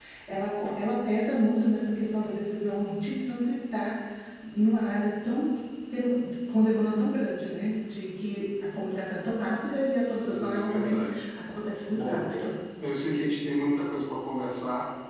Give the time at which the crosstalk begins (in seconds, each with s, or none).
10.1 s